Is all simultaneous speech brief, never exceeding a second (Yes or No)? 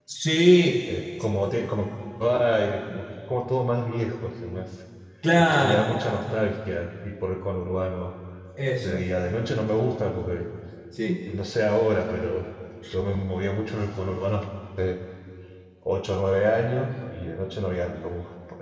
Yes